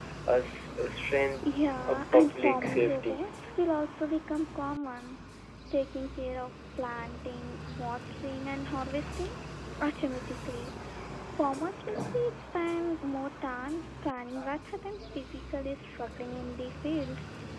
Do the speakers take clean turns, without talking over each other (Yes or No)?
No